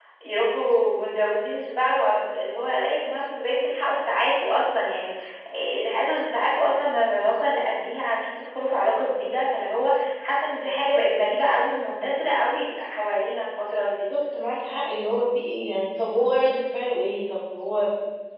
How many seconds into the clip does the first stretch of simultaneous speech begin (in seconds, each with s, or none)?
none